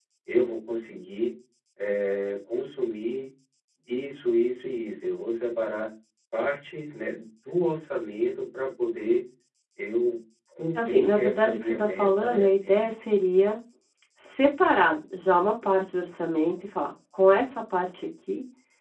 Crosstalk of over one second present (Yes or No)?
Yes